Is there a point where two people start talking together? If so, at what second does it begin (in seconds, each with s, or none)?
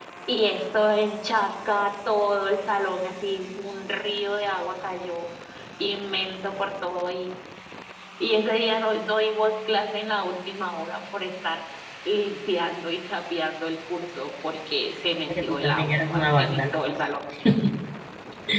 15.3 s